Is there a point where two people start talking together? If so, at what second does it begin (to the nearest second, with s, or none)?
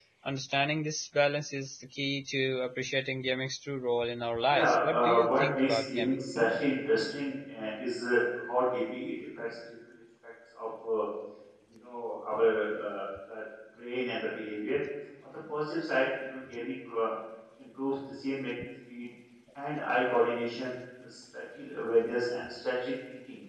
4 s